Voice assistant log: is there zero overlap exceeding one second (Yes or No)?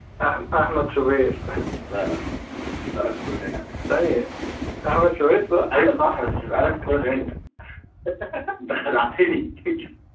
Yes